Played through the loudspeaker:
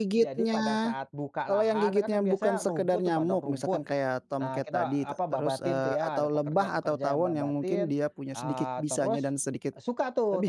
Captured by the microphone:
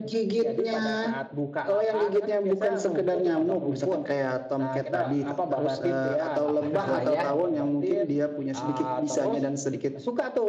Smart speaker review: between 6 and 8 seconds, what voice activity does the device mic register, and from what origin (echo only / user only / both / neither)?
both